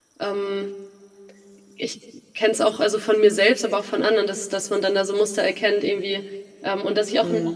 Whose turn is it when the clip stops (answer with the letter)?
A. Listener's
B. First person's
B